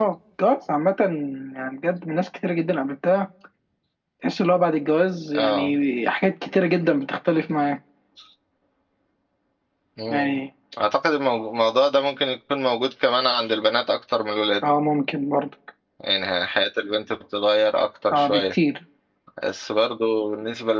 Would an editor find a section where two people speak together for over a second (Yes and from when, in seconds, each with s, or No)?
No